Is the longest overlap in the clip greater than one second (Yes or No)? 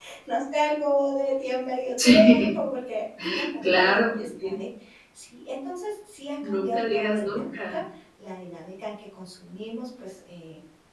Yes